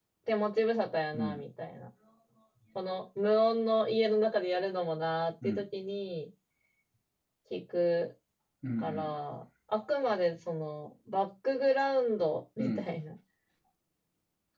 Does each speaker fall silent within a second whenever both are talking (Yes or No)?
Yes